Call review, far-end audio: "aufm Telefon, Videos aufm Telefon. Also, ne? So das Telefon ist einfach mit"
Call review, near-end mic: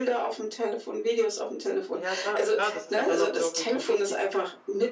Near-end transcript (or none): Ja, sa klar, das ist ja dann auch irgendwo wichtig.